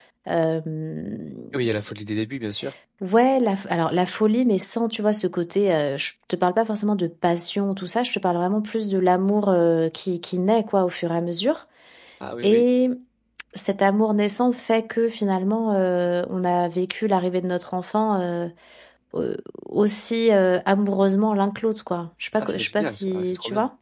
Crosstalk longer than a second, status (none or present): present